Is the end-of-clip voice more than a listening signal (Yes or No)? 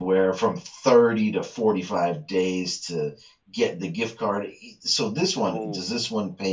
No